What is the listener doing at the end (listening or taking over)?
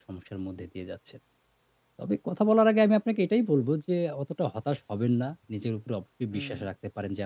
listening